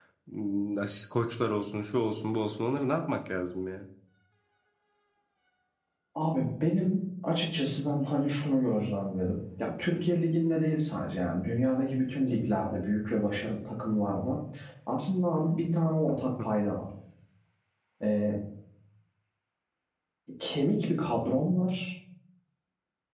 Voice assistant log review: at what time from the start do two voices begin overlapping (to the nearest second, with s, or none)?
none